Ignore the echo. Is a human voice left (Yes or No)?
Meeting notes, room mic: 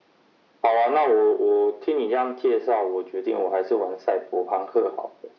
No